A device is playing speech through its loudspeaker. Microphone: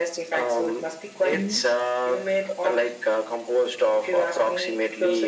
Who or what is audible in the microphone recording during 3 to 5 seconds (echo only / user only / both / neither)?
echo only